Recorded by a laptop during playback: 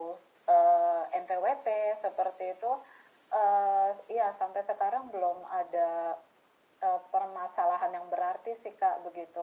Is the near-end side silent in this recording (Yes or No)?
Yes